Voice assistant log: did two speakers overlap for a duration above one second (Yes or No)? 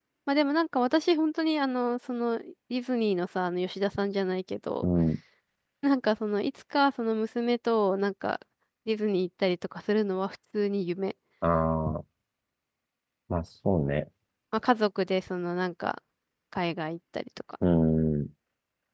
No